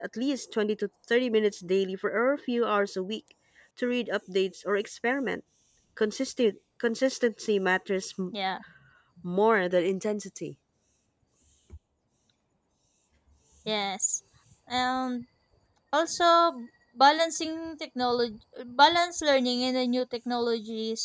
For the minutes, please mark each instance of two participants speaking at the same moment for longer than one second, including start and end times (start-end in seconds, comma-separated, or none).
none